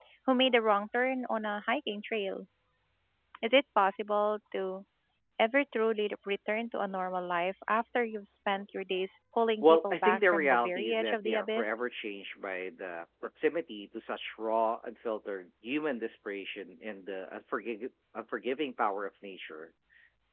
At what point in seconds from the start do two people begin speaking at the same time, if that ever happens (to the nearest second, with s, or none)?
10 s